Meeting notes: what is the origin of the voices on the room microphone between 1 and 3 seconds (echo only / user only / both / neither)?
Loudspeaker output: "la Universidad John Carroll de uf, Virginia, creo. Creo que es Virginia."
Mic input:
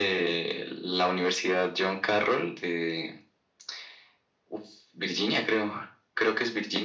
echo only